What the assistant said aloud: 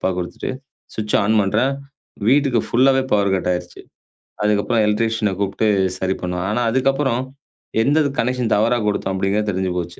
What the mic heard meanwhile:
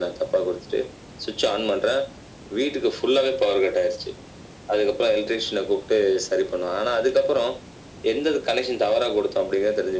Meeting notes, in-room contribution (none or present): none